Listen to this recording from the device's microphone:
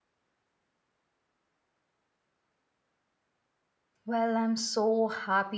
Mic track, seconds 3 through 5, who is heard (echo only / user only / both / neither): user only